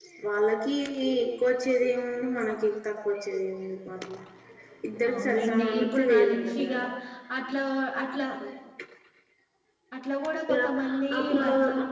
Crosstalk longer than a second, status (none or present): present